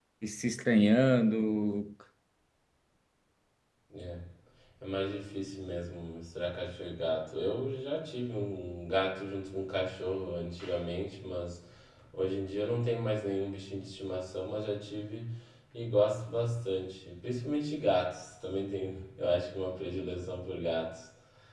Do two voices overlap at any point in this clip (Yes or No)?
No